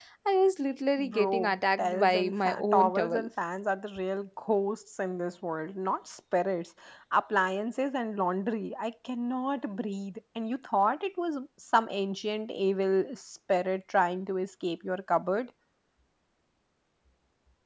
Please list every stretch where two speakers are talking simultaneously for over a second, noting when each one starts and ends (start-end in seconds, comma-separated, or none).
1.0-3.2